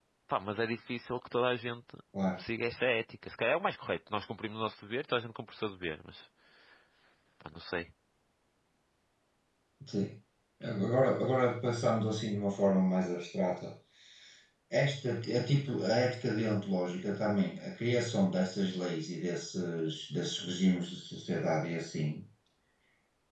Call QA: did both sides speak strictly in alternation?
Yes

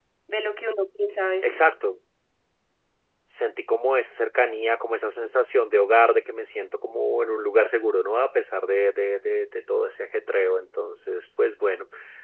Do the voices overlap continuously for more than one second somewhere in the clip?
No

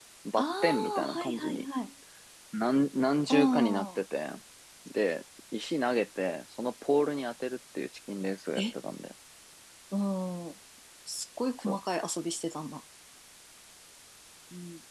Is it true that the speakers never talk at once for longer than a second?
No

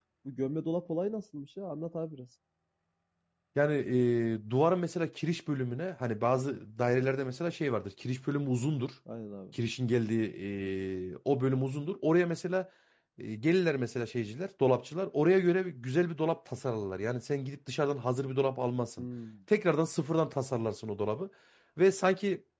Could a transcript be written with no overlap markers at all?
Yes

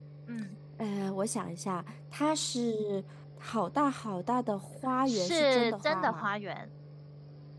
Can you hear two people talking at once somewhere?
Yes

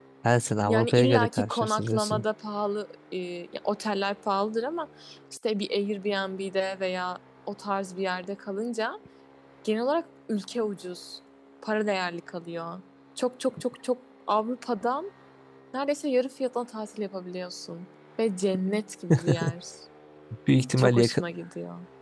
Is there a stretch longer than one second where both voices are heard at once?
Yes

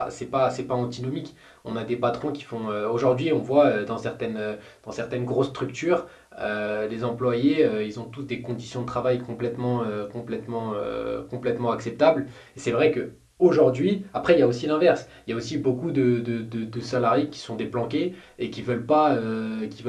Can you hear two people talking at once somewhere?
No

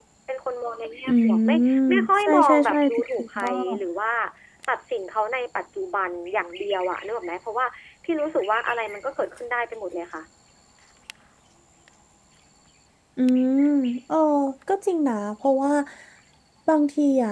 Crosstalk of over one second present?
Yes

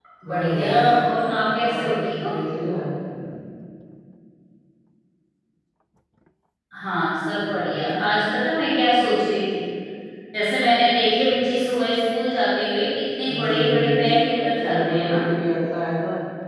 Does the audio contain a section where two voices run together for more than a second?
Yes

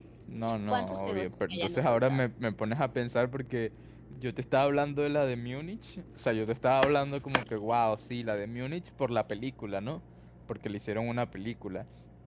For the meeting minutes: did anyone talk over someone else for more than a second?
Yes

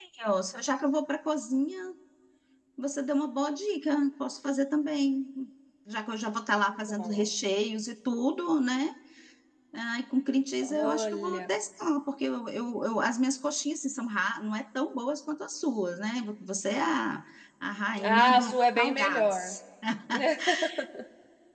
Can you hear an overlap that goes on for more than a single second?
Yes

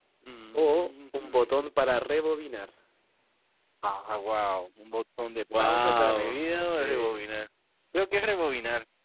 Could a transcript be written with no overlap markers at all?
No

